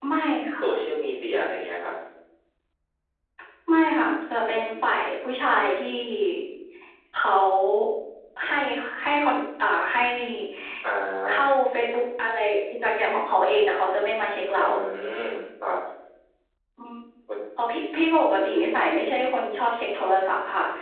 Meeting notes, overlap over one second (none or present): none